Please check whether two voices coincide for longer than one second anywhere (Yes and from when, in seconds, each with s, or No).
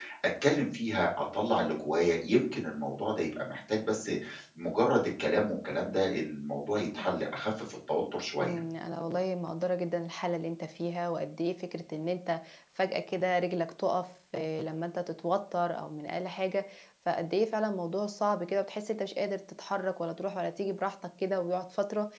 No